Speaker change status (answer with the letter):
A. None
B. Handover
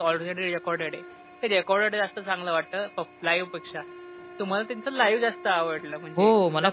B